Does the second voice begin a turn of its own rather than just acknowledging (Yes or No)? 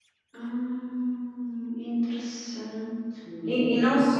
Yes